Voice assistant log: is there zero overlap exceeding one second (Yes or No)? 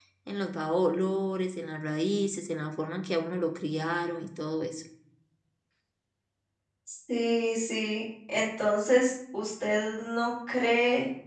Yes